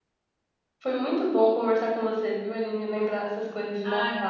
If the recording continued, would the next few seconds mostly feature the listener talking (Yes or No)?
No